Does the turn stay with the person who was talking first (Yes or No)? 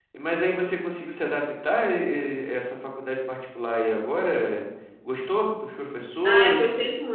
No